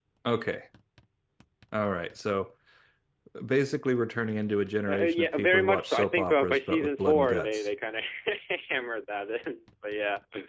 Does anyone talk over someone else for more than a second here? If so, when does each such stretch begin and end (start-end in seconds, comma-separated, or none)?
4.9-7.7